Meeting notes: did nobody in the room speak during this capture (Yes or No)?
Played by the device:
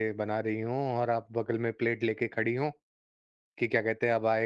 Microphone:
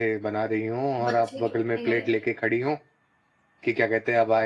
No